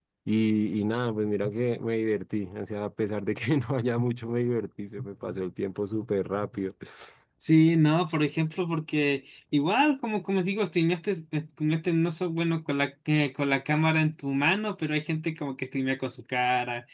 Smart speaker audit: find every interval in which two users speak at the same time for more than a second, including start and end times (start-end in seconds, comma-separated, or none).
none